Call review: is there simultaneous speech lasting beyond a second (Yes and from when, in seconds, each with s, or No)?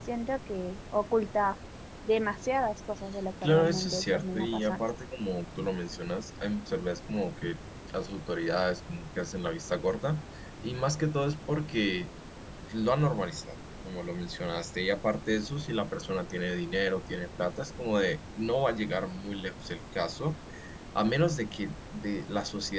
Yes, from 3.4 s